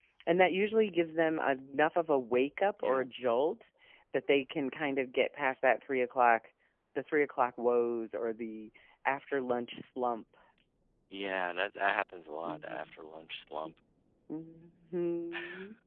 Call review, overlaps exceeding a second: none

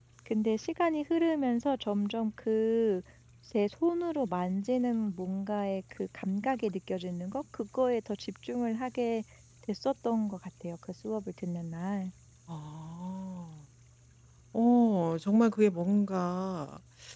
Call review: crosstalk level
none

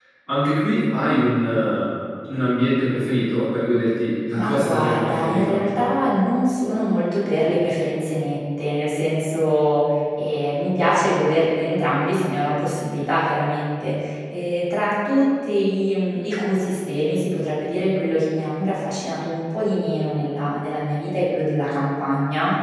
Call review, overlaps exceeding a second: present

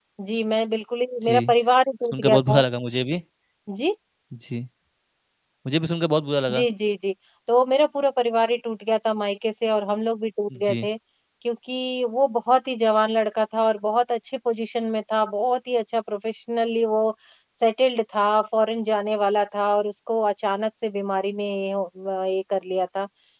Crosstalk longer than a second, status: none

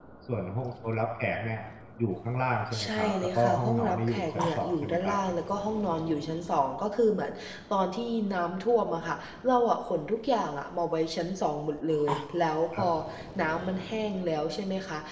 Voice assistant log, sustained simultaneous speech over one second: present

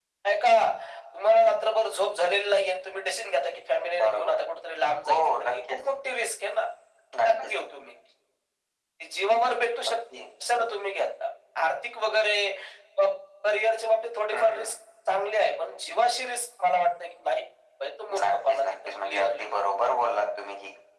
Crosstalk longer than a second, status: present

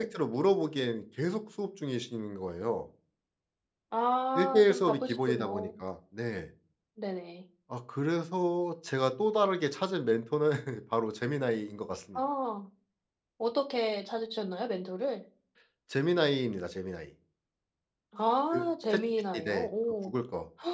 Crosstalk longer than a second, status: present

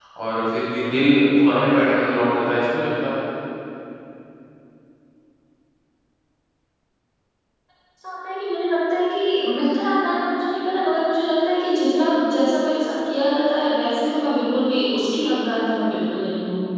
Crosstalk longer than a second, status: none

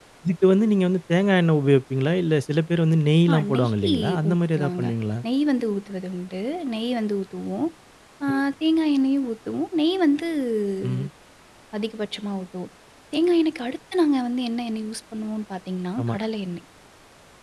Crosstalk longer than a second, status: present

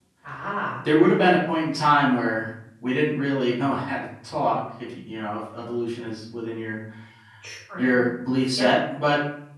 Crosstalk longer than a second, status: none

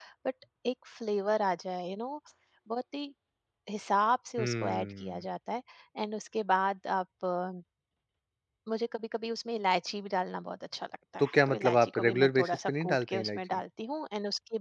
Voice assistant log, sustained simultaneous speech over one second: present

